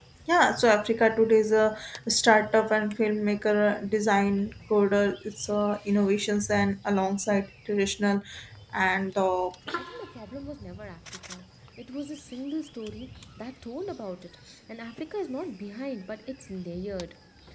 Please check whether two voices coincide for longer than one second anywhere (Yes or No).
No